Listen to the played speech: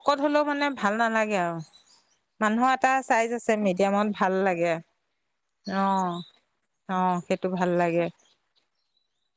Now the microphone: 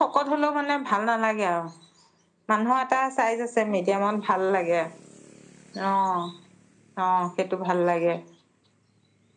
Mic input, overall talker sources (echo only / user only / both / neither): echo only